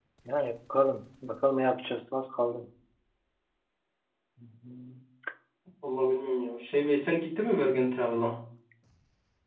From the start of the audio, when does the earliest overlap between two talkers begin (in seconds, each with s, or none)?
none